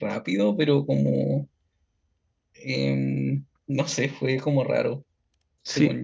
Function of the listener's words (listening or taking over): taking over